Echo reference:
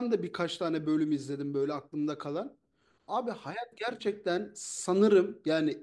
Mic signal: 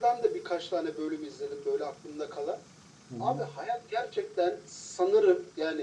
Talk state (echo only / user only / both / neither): both